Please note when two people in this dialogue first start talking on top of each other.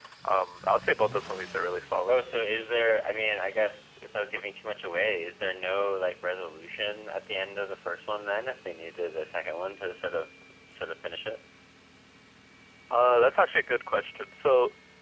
none

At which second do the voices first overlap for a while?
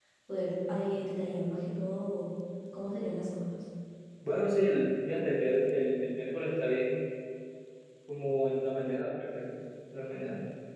none

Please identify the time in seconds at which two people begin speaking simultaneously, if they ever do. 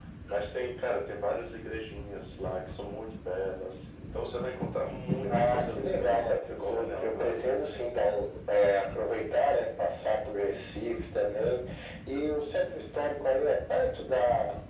5 s

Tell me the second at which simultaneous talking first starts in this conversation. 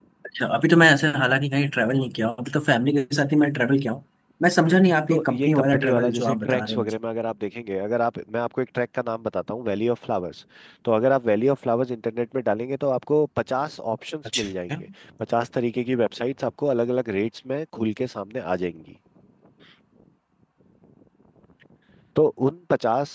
5 s

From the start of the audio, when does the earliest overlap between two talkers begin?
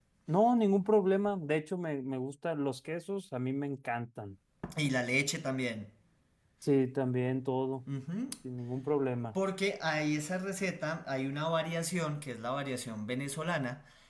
none

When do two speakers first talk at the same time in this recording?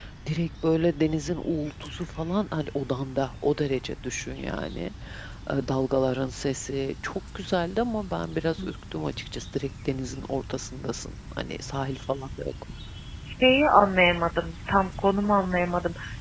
none

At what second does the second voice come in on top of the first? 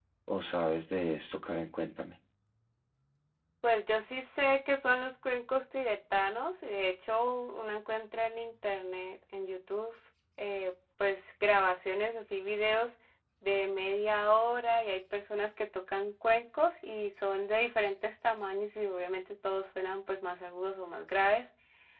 none

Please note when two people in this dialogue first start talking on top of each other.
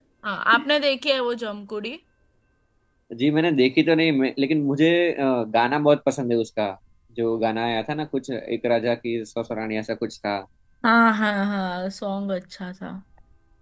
none

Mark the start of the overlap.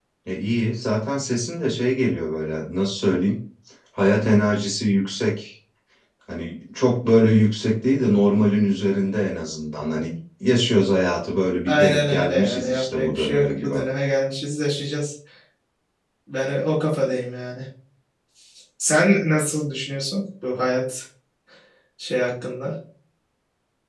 12 s

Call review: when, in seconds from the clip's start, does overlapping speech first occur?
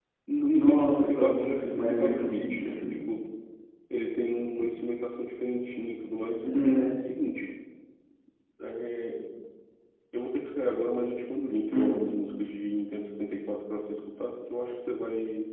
1 s

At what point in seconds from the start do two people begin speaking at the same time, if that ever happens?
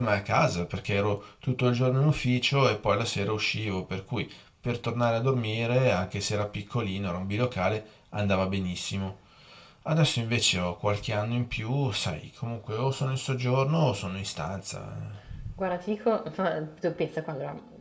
none

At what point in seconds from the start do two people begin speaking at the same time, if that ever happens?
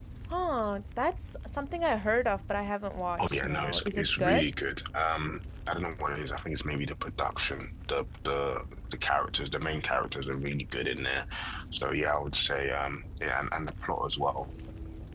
3 s

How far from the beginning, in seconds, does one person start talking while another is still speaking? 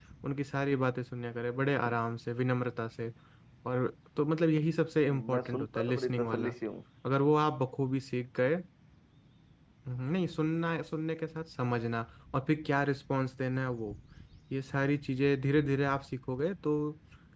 5 s

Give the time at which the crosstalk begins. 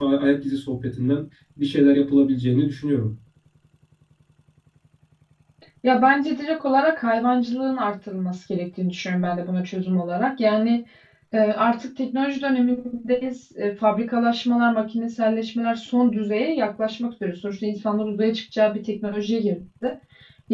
none

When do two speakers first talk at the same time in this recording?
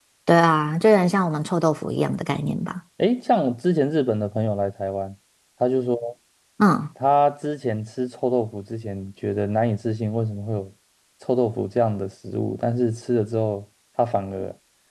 none

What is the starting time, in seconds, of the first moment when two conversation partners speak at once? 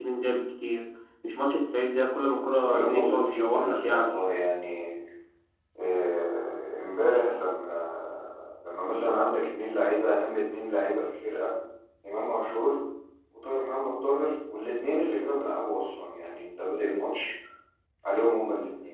3 s

